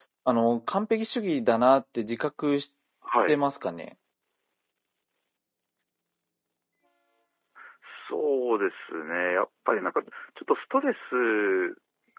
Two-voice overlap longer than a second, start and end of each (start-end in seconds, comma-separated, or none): none